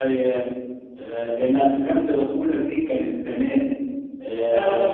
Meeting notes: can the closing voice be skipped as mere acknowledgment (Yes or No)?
Yes